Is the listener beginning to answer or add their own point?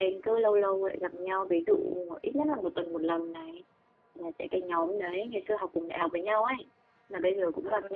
No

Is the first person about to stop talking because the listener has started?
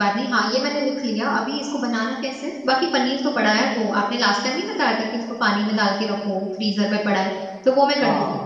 Yes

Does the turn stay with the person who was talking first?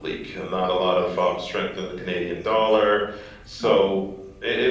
Yes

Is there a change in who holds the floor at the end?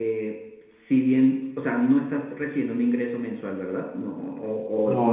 No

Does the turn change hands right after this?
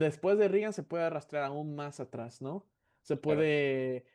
No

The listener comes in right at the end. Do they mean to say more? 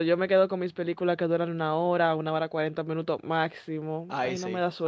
Yes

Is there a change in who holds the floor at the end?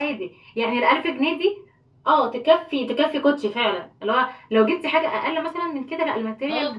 Yes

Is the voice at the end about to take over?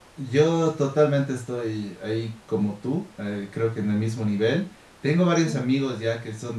No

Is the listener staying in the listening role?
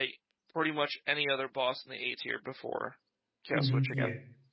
No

